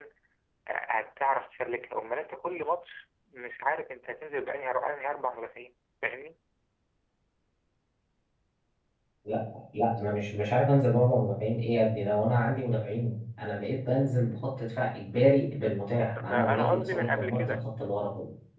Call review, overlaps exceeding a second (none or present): present